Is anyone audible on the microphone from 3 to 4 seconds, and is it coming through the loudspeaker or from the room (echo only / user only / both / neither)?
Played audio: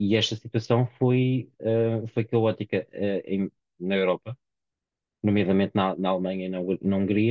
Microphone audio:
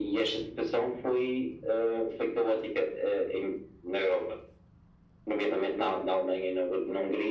echo only